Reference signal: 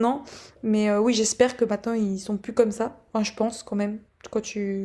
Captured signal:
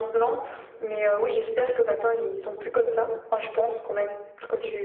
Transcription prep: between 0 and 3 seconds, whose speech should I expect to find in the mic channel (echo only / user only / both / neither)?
echo only